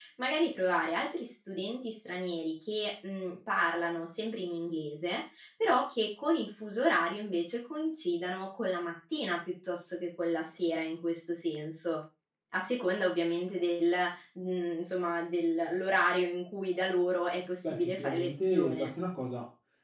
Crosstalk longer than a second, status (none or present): present